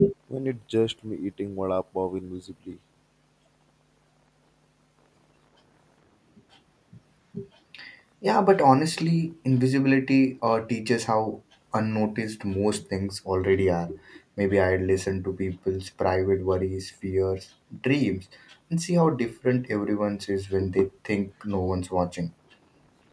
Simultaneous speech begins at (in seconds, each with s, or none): none